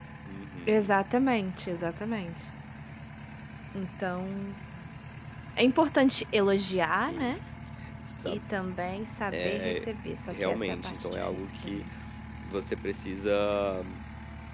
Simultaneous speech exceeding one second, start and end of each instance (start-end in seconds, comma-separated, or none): 10.3-11.8